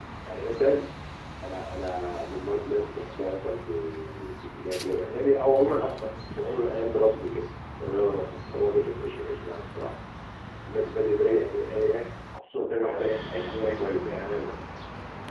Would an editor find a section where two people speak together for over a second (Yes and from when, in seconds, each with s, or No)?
Yes, from 12.8 s